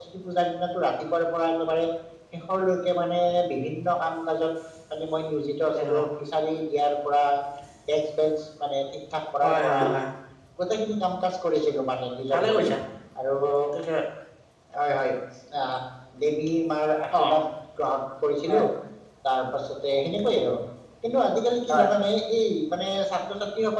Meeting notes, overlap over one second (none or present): none